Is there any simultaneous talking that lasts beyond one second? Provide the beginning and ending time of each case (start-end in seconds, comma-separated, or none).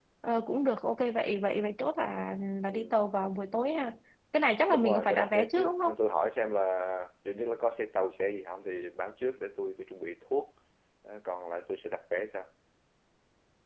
4.7-5.9